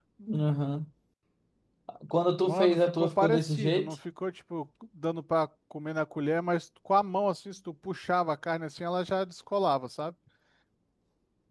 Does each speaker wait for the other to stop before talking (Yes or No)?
No